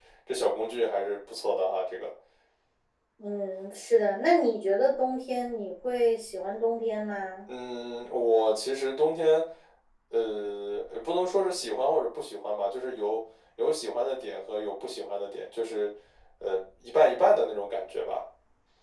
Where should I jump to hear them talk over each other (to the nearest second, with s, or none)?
none